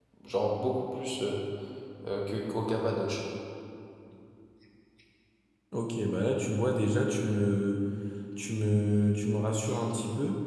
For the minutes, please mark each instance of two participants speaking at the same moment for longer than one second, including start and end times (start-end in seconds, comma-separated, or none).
none